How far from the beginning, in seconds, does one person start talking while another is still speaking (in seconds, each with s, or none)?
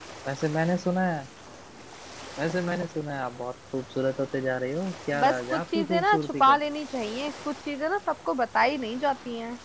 5.1 s